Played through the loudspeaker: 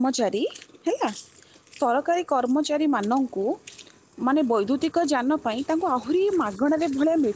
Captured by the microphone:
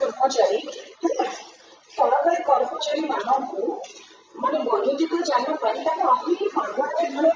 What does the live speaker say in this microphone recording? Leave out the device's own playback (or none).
none